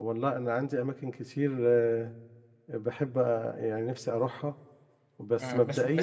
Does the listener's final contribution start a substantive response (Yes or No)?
Yes